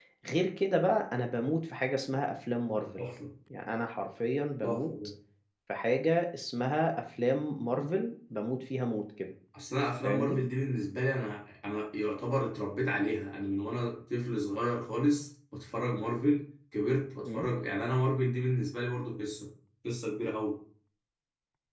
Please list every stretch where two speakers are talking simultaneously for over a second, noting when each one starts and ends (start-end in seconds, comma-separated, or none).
none